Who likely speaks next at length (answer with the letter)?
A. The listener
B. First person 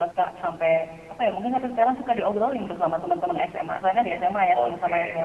A